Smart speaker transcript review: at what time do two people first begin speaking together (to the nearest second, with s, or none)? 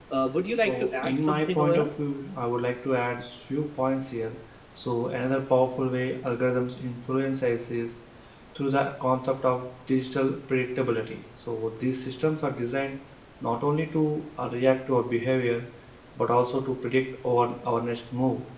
1 s